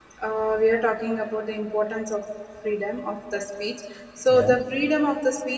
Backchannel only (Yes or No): Yes